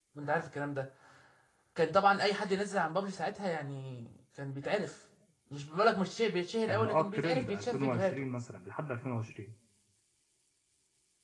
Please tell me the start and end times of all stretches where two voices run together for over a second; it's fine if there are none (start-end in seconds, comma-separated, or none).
6.7-8.3